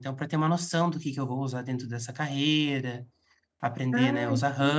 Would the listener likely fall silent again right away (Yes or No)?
Yes